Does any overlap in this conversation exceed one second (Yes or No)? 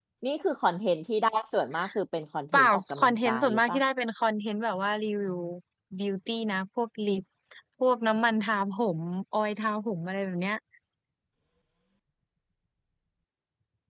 Yes